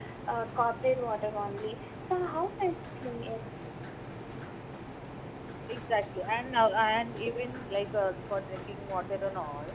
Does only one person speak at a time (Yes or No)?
Yes